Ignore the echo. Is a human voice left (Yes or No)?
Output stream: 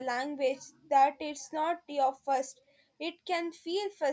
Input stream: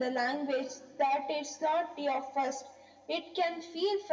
No